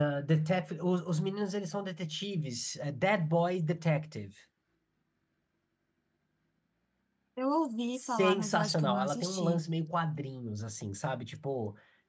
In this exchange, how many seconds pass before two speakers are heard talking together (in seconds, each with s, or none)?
8.0 s